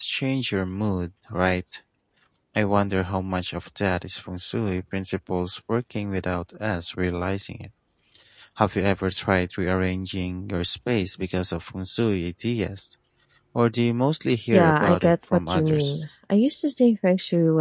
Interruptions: present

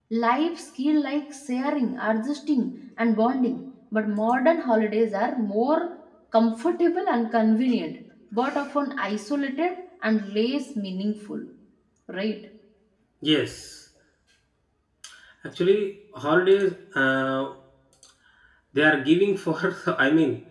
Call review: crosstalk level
none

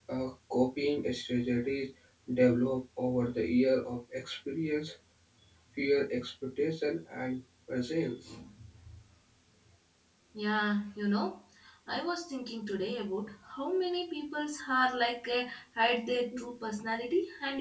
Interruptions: none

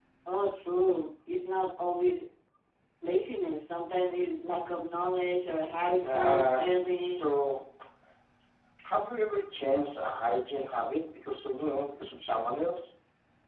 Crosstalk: present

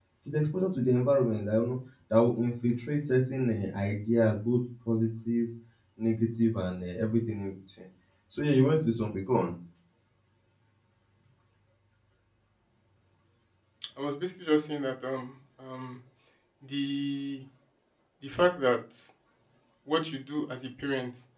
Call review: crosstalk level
none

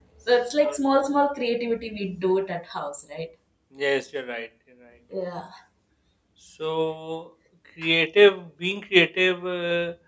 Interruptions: none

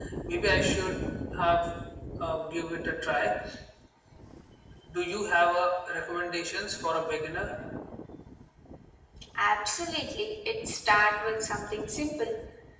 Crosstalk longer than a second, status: none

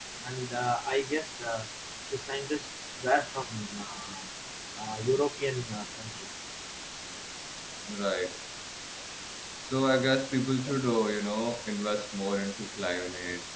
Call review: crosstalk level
none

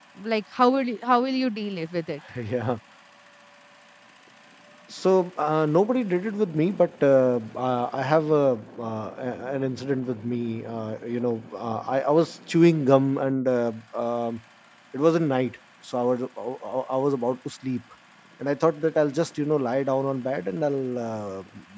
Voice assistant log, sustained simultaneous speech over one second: none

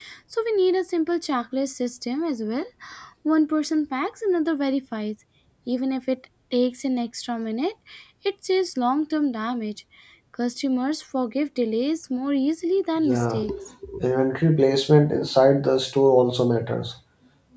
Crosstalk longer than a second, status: none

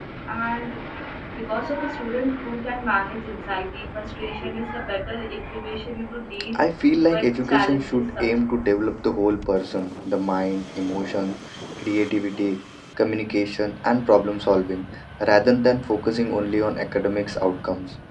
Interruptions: present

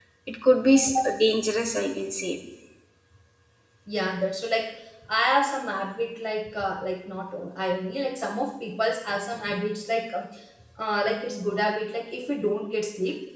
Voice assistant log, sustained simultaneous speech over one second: none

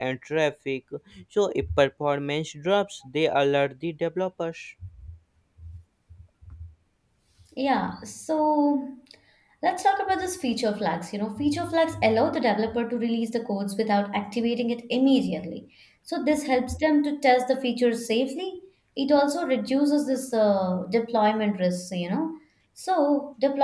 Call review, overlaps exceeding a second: none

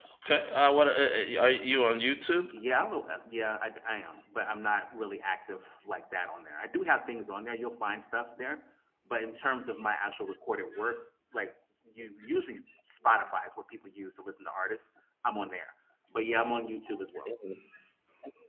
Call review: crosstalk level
none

